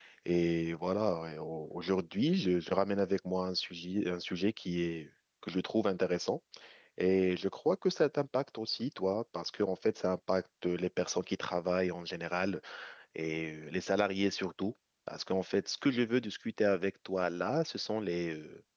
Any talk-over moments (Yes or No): No